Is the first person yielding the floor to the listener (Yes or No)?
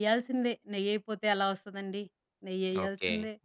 Yes